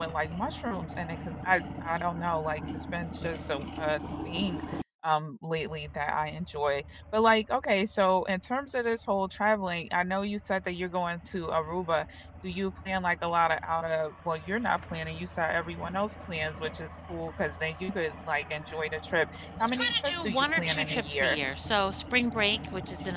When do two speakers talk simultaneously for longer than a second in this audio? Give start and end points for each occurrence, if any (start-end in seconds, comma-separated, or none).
19.6-21.4